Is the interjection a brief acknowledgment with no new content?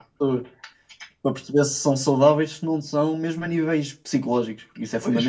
No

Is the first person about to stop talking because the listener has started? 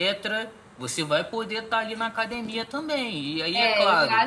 Yes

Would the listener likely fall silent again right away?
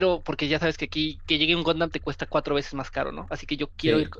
Yes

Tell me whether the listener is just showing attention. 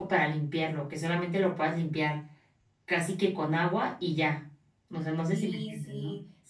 No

